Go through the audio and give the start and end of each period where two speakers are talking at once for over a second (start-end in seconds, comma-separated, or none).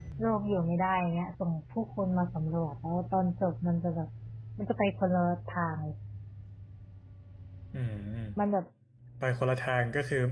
none